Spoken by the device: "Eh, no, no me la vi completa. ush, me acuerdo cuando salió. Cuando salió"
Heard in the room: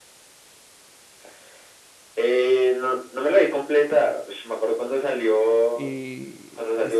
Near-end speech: present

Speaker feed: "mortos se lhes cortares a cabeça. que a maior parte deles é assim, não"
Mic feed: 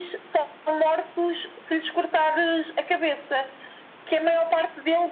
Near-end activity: none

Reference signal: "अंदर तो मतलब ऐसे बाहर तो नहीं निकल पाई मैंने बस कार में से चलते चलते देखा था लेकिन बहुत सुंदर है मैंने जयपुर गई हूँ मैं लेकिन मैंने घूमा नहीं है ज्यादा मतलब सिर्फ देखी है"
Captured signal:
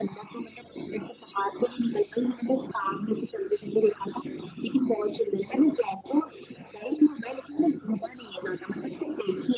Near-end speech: none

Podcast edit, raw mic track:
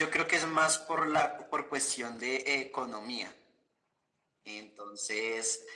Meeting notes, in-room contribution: none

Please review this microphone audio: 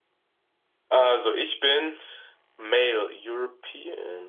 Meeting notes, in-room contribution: none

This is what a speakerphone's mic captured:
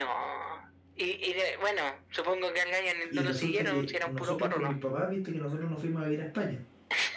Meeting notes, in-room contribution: present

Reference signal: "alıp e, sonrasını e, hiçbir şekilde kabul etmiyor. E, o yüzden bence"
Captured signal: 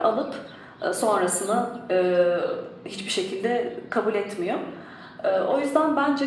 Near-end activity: none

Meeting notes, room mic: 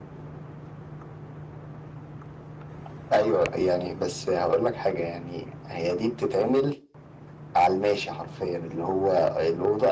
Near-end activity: none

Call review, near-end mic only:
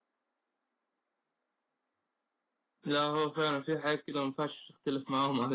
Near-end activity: present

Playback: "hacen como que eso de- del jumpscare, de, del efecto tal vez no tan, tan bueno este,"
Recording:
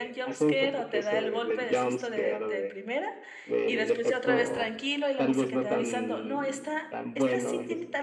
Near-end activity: present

